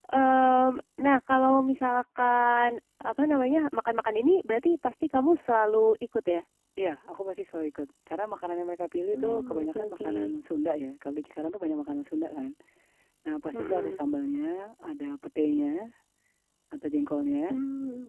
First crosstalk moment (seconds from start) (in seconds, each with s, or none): 9.1 s